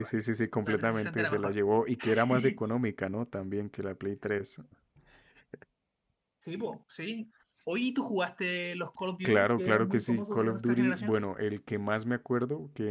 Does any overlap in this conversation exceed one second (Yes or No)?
Yes